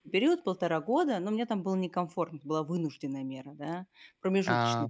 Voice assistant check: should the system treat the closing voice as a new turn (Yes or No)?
No